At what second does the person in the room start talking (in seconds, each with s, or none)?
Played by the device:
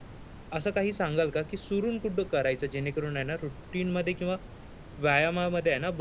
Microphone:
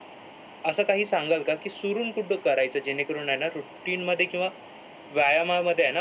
none